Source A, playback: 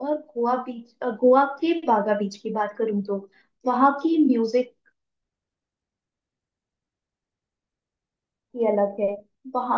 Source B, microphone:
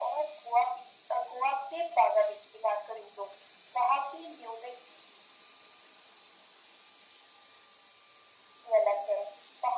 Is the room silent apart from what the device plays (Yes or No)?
Yes